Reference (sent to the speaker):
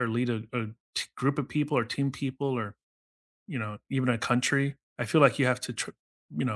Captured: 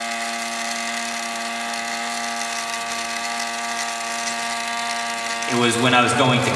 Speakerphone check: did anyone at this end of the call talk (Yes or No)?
Yes